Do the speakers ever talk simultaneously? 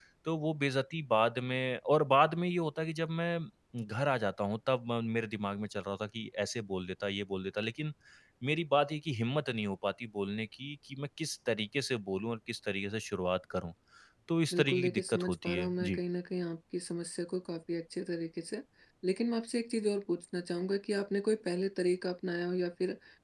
Yes, from 14.5 s

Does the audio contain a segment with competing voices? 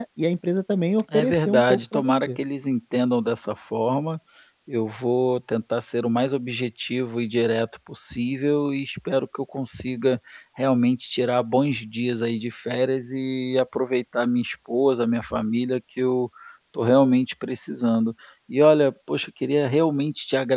Yes, from 1.1 s

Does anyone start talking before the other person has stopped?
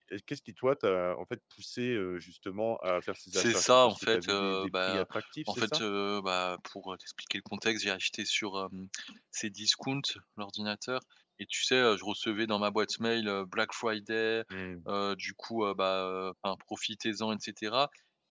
Yes, from 3.3 s

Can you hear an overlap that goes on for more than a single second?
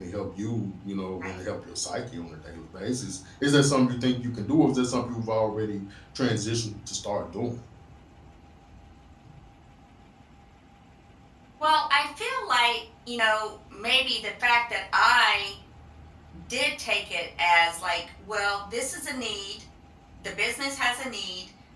No

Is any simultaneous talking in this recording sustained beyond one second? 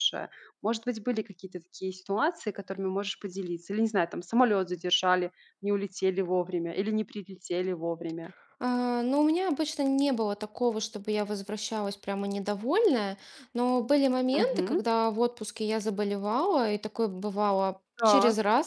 No

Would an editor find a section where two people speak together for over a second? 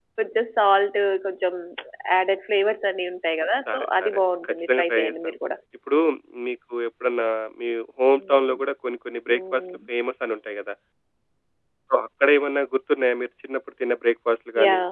Yes, from 3.7 s

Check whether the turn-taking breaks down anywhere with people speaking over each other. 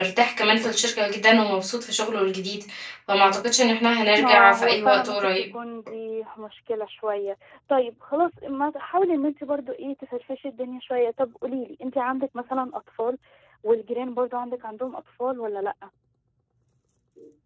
Yes, from 4.2 s

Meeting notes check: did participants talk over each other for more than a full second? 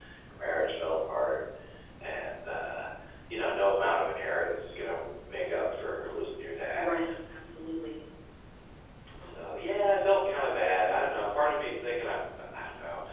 No

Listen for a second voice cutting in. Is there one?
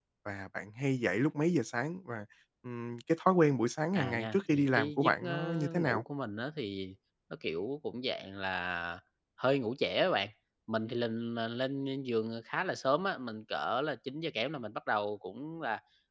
Yes, from 4.0 s

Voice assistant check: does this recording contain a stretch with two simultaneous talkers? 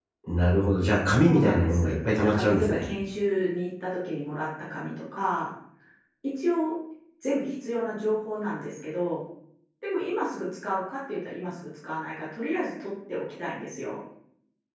Yes, from 1.2 s

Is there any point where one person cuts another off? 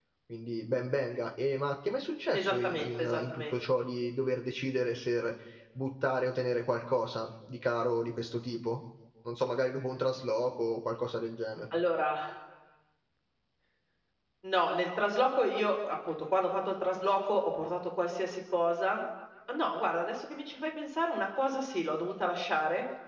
Yes, from 2.3 s

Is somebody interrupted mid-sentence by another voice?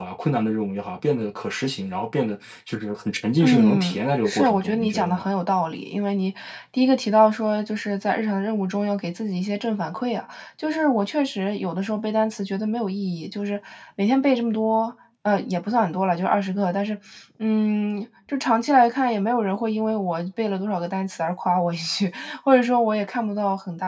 Yes, from 3.4 s

